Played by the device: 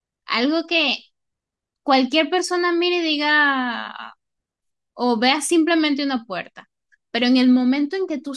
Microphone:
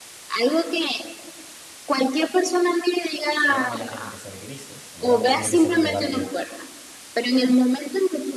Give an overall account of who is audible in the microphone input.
both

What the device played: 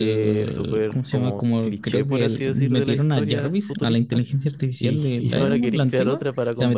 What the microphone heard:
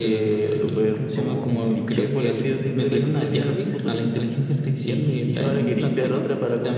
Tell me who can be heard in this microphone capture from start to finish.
echo only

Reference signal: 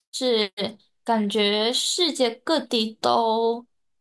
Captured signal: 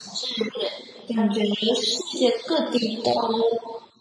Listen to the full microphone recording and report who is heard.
echo only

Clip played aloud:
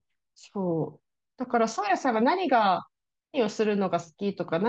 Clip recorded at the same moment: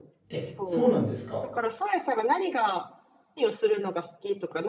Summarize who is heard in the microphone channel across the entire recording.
both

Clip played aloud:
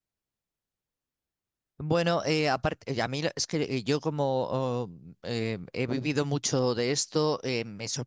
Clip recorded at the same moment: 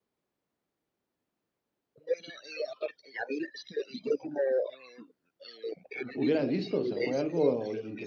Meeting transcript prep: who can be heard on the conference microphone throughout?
both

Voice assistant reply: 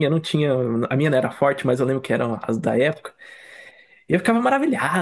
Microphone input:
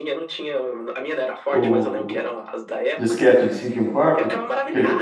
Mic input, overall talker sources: both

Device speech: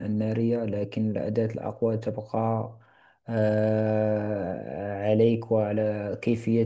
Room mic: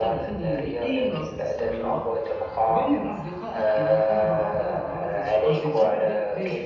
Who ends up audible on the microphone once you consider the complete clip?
both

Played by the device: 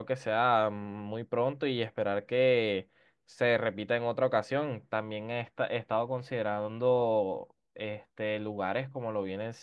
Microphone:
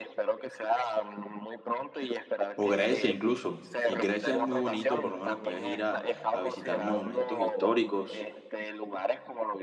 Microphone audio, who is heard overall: both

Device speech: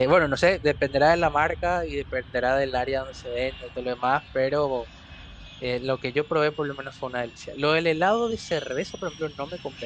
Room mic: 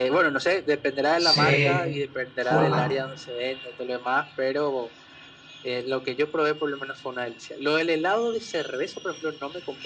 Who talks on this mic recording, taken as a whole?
both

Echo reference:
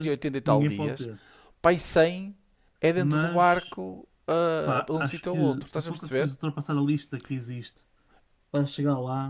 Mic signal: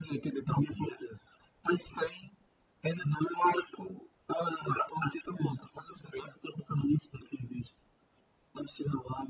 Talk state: echo only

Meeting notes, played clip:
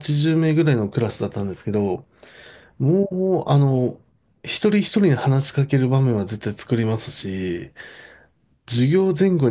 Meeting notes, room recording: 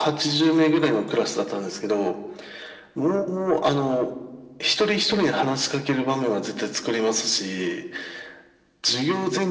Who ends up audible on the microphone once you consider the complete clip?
echo only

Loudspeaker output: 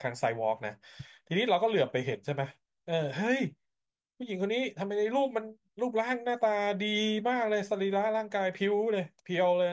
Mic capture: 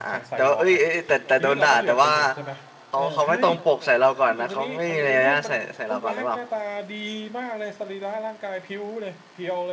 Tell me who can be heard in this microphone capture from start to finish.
both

